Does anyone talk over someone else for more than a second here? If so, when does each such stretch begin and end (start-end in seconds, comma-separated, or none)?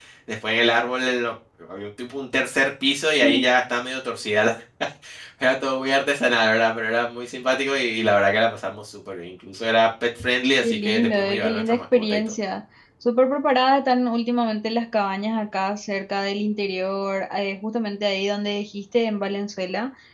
10.6-12.2